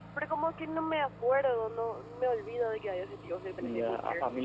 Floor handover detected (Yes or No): Yes